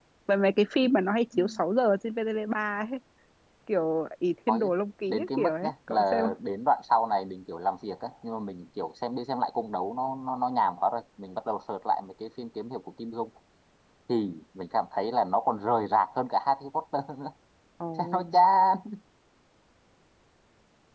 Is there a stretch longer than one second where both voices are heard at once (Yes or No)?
Yes